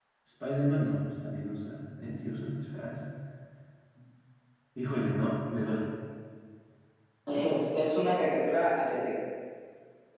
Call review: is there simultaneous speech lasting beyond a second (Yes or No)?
No